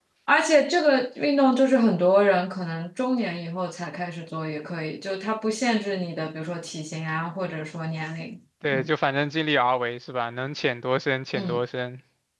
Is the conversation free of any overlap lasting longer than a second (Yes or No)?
Yes